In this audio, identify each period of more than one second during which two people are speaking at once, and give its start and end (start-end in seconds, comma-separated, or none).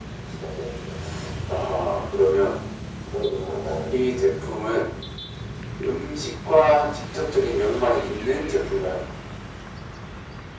none